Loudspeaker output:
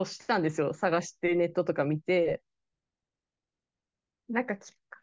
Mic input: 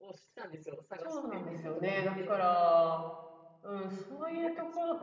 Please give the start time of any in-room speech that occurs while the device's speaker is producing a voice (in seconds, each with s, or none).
1.0 s